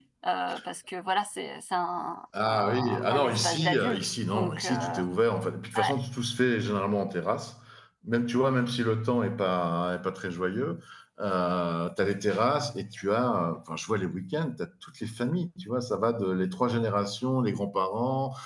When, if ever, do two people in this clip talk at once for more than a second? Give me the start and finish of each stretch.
2.5-5.0

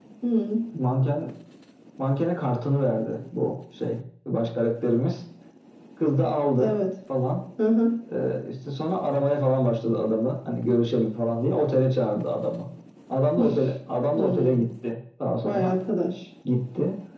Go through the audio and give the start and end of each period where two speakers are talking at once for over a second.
none

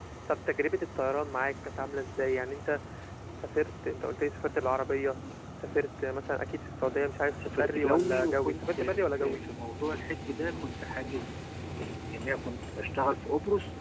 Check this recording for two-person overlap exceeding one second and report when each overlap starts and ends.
7.6-9.4

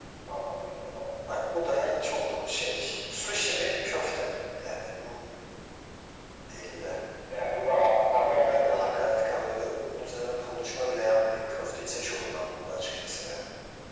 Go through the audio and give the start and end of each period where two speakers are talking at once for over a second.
8.1-9.4

